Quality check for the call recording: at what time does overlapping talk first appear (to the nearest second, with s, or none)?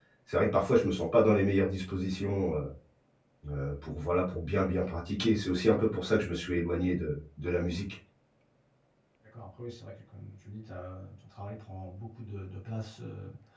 none